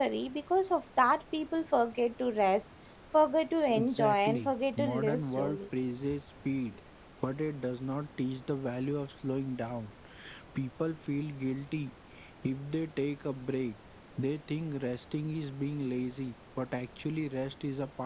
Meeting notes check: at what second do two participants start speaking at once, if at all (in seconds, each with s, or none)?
3.7 s